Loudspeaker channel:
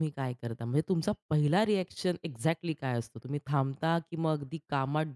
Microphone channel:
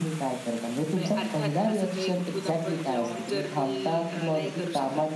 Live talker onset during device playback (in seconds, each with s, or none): 0.9 s